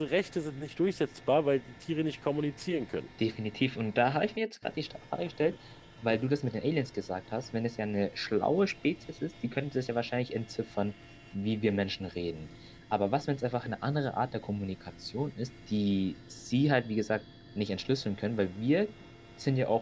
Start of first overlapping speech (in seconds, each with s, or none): none